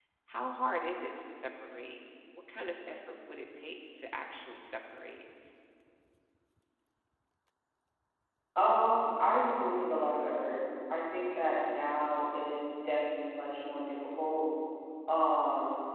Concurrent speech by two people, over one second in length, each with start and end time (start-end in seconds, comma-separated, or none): none